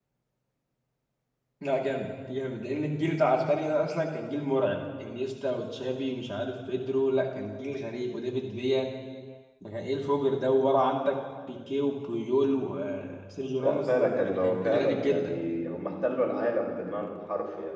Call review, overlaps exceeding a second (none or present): present